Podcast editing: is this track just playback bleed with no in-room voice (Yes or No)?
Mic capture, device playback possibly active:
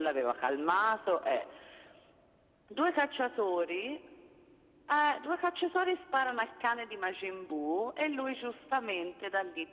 Yes